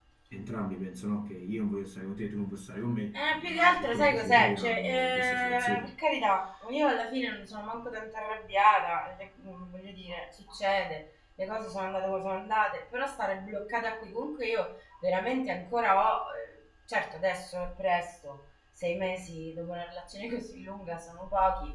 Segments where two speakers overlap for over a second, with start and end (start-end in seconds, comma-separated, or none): 3.1-5.9